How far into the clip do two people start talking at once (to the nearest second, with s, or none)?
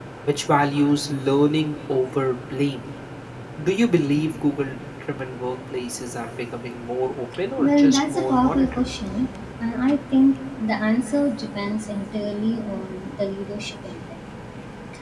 8 s